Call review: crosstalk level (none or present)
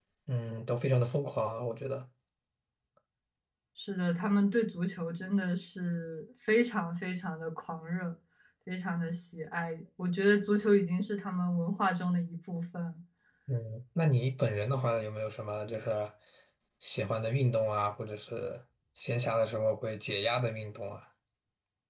none